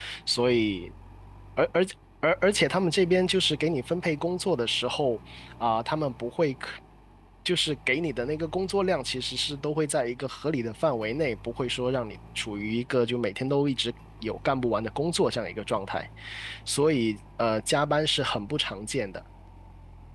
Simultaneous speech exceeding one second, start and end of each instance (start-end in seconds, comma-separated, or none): none